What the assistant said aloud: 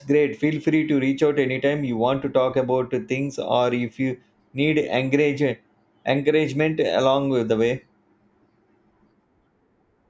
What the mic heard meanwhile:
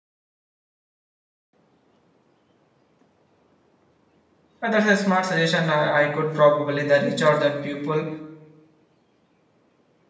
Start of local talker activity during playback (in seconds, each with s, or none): 4.6 s